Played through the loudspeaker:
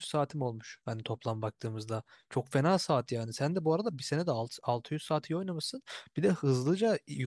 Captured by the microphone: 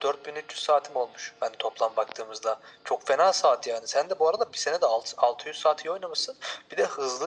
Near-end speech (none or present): none